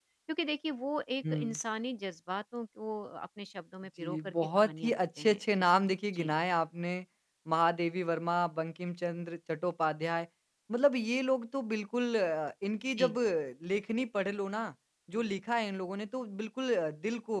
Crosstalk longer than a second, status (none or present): present